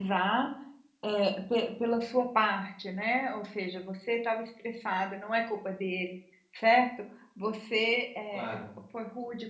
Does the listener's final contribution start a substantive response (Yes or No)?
No